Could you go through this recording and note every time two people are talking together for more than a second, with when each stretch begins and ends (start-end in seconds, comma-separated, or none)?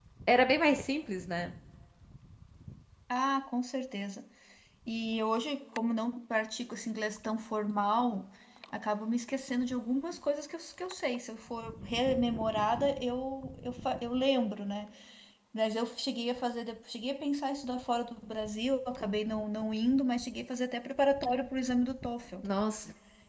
none